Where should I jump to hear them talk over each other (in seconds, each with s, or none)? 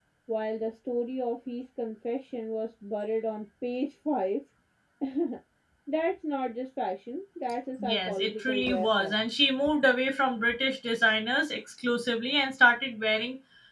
7.8 s